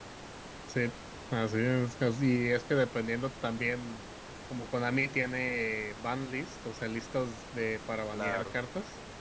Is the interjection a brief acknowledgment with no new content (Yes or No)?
Yes